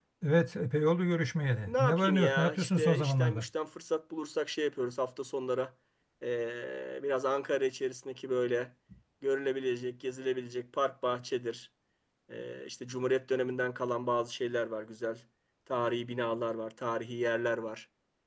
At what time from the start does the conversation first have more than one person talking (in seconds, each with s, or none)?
1.7 s